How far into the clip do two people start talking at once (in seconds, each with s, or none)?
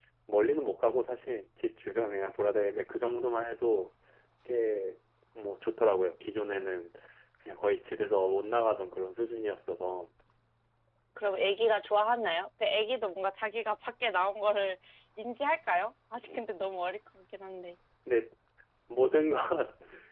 none